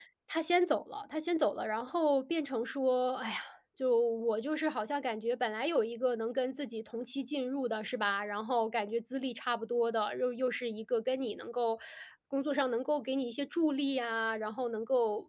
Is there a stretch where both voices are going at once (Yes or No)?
No